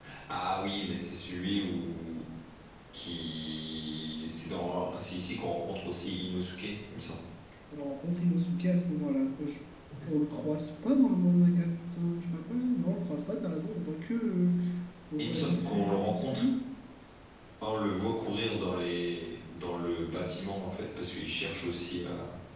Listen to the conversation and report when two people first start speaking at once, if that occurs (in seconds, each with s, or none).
15.2 s